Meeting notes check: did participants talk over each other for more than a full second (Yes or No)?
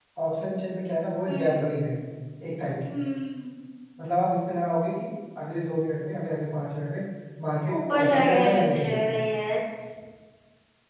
Yes